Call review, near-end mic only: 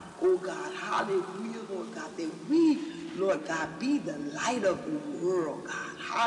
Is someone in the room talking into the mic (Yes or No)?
No